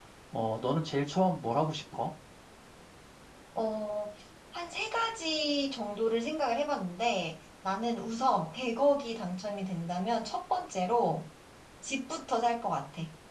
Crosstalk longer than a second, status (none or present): none